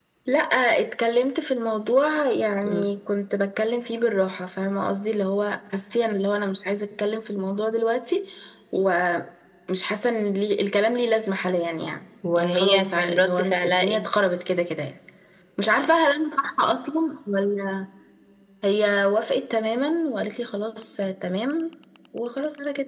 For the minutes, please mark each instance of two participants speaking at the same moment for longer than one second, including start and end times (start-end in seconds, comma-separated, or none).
12.4-14.0